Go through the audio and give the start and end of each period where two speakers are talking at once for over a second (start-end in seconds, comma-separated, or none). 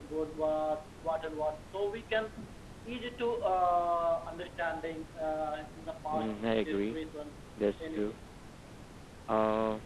none